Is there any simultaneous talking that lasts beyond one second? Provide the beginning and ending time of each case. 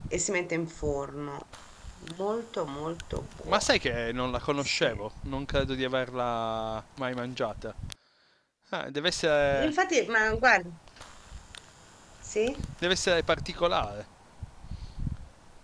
none

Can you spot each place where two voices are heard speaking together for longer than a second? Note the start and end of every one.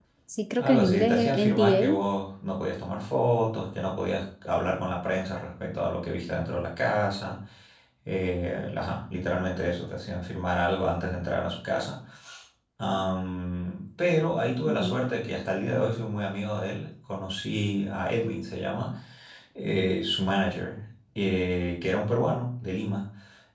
0.6-2.0

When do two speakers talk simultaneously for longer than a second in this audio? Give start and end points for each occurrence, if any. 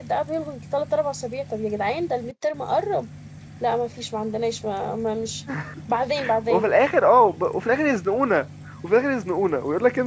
none

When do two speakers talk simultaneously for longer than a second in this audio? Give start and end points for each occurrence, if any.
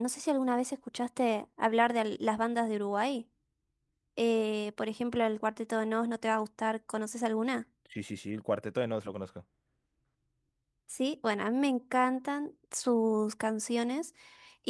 none

